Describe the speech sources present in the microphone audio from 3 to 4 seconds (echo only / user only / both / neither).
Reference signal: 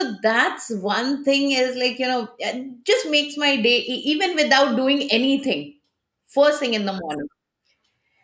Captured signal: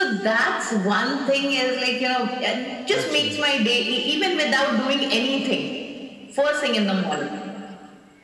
both